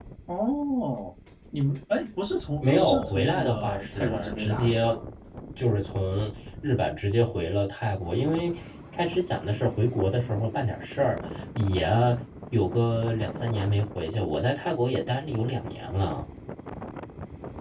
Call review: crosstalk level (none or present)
present